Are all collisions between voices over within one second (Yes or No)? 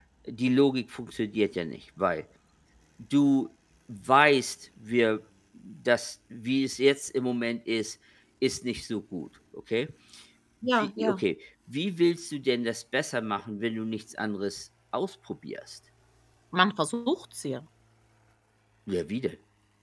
Yes